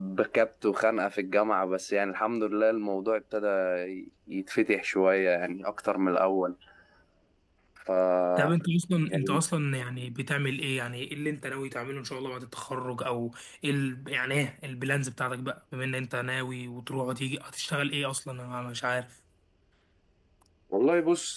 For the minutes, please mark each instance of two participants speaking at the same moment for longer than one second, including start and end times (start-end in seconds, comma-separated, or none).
none